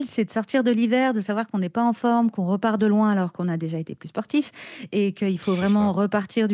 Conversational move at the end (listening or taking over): listening